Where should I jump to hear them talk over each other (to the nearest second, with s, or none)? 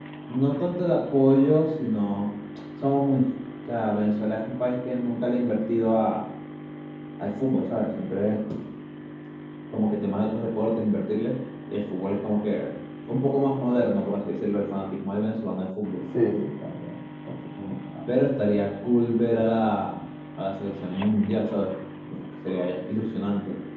none